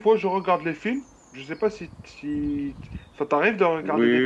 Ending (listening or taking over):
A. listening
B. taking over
B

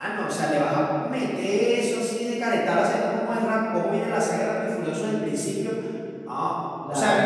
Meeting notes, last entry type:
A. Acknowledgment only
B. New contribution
A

